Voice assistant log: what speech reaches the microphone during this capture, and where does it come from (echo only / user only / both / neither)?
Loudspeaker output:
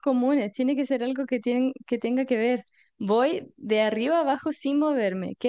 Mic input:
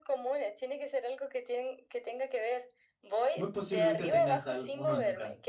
both